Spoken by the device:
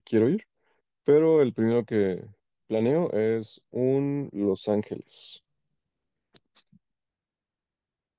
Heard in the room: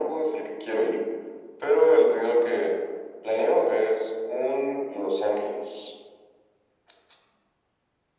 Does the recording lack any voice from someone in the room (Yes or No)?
Yes